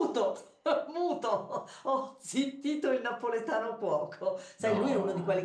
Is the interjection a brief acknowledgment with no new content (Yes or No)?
Yes